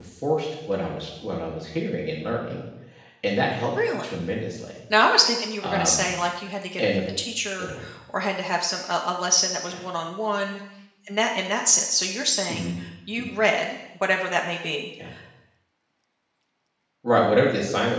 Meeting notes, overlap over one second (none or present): none